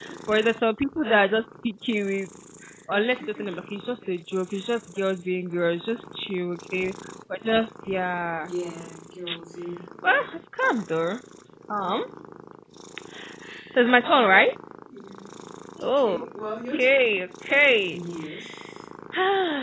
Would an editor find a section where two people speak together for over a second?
No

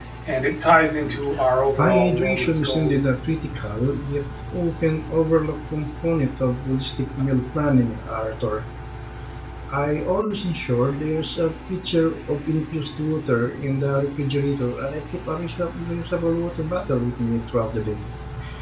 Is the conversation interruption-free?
No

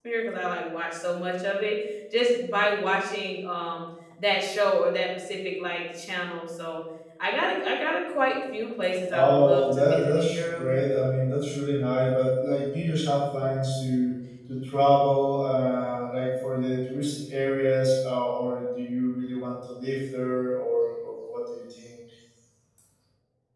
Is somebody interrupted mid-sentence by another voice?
Yes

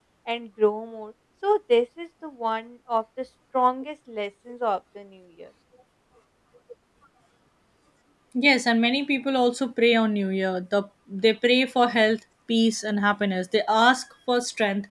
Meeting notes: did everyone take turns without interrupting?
Yes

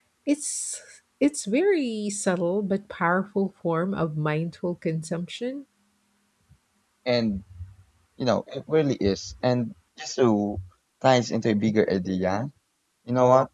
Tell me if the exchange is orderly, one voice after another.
Yes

